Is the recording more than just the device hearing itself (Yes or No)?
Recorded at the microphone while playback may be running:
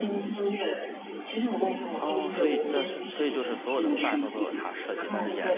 Yes